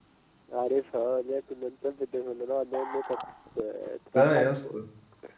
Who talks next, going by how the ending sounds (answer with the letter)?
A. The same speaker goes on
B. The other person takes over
B